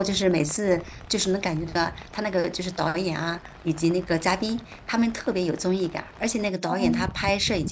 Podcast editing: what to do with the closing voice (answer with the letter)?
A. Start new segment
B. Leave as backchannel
B